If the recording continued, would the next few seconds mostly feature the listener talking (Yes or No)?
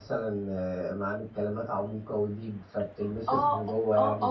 Yes